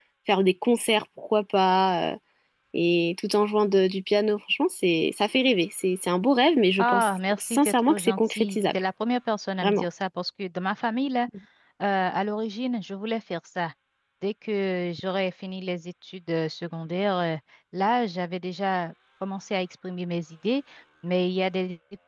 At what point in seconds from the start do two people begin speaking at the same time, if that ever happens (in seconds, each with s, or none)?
6.8 s